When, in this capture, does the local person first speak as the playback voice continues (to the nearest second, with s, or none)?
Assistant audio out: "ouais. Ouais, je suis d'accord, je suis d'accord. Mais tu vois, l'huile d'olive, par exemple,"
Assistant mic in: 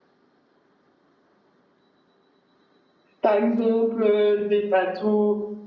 3 s